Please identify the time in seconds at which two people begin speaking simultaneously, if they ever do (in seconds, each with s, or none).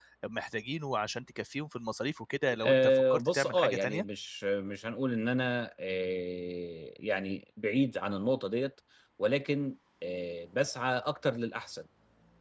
2.6 s